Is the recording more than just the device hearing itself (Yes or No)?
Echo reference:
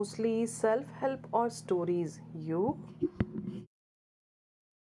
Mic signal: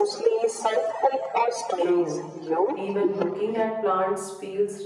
Yes